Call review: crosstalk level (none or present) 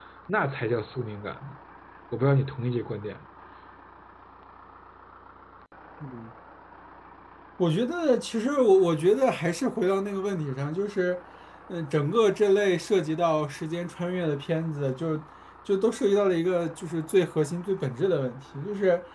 none